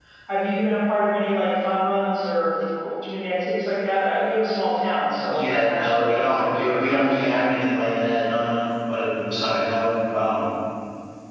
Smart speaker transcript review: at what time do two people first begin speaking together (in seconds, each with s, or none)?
5.3 s